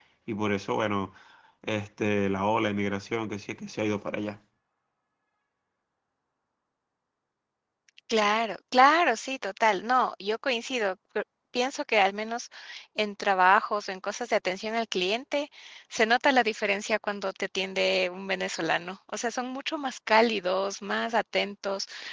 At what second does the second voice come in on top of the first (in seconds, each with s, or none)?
none